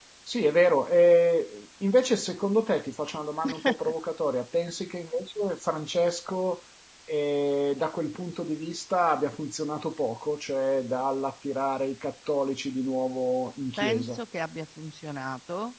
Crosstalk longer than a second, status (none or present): none